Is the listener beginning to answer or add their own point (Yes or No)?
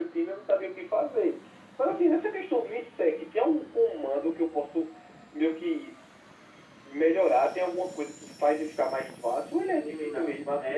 Yes